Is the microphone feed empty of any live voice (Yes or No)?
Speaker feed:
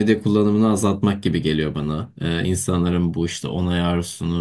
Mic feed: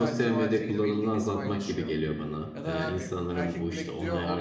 No